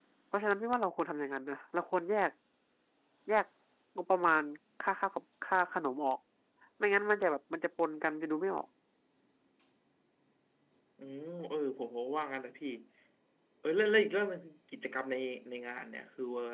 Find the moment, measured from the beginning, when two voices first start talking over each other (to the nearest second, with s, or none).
none